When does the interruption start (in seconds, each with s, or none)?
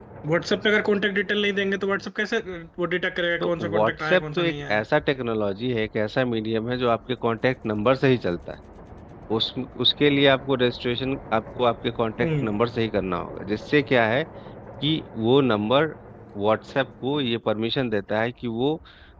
3.4 s